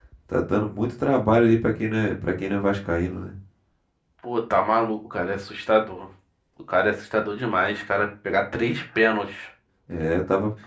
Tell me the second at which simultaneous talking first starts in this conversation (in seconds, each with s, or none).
none